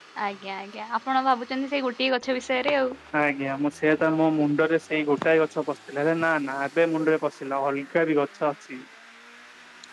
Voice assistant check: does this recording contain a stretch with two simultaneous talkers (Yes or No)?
No